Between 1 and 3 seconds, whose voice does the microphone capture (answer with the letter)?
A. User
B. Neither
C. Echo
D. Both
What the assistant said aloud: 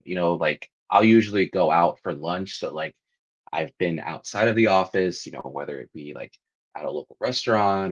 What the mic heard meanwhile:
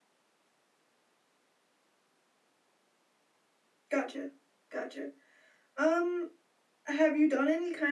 B